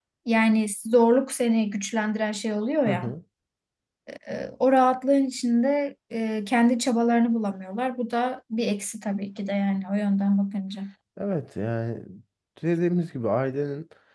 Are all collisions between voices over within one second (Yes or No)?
Yes